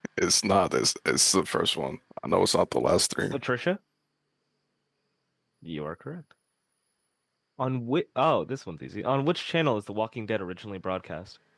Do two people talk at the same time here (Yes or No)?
No